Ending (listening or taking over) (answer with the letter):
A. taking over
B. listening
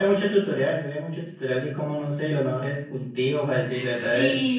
A